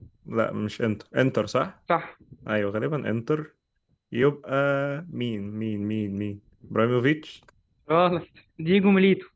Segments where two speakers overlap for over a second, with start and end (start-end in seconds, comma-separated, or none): none